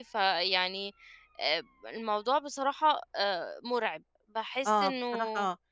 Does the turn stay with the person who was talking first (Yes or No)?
No